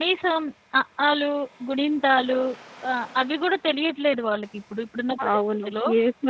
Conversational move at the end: taking over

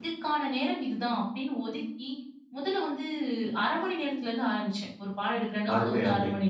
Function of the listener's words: taking over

